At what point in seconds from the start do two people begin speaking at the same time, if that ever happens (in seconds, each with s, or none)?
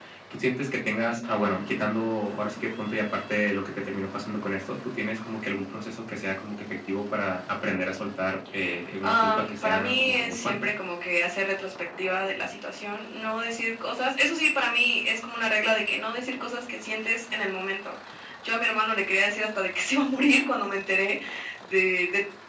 9.0 s